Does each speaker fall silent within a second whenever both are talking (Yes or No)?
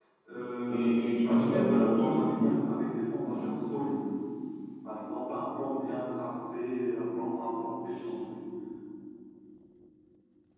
No